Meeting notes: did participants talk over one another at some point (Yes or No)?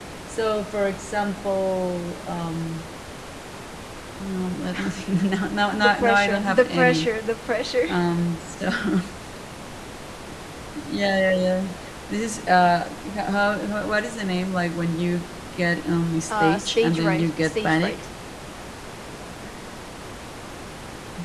Yes